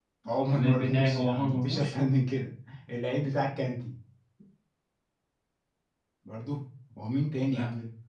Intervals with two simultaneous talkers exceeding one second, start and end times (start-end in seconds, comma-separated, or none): 0.5-1.9